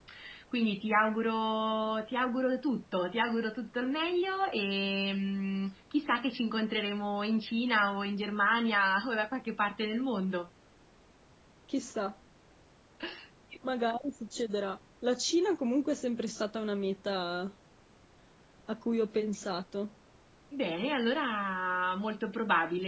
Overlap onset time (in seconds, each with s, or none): none